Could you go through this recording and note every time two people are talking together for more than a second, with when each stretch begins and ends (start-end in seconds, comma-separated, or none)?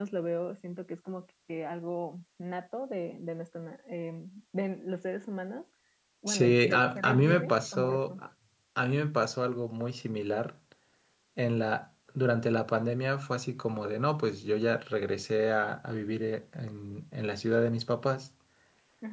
6.3-8.2